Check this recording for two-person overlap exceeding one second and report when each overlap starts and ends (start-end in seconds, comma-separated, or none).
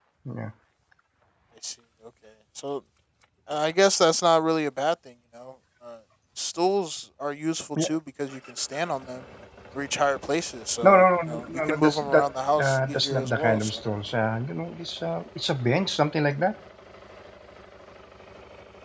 10.8-13.8